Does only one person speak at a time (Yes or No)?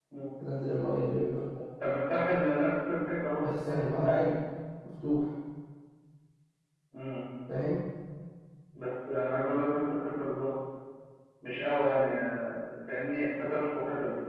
Yes